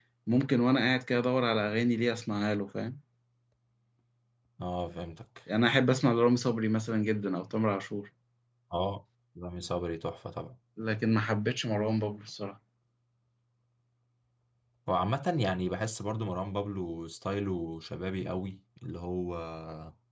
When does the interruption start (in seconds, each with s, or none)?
none